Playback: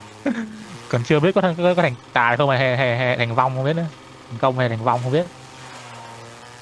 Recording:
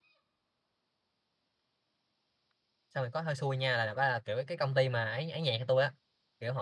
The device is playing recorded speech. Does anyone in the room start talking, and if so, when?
2.9 s

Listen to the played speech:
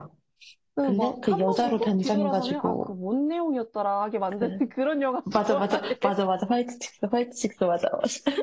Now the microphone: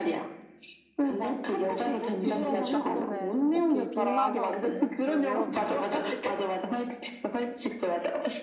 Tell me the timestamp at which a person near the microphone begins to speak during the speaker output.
2.2 s

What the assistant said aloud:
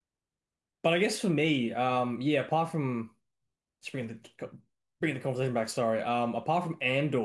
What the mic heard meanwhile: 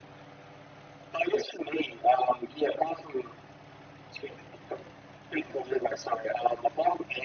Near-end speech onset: none

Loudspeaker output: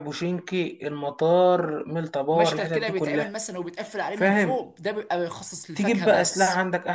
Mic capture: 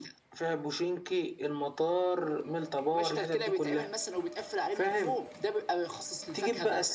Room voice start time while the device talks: none

